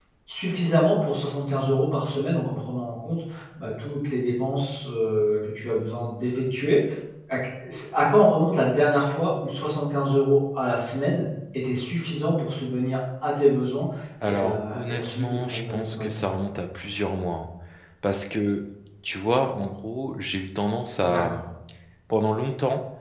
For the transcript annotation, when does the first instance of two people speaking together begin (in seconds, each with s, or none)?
14.3 s